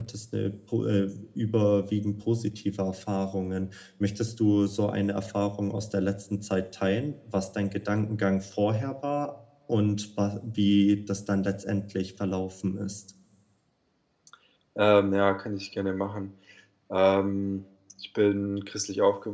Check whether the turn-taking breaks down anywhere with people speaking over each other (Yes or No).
No